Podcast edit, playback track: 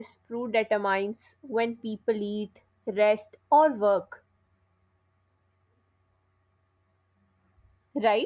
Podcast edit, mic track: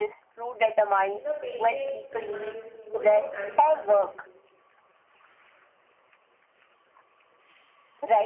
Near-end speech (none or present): present